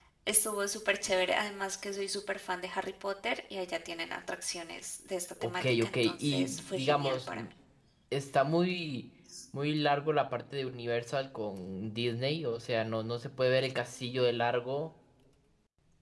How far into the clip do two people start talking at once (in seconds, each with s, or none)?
5.4 s